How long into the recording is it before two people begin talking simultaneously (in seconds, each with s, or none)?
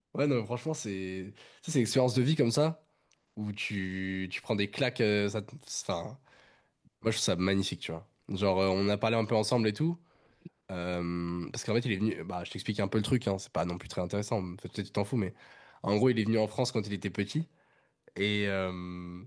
none